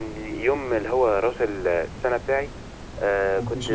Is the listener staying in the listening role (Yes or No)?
Yes